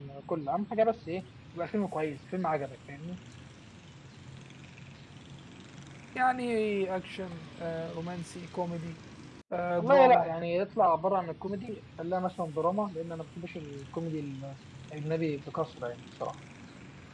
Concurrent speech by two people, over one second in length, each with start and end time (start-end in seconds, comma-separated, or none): none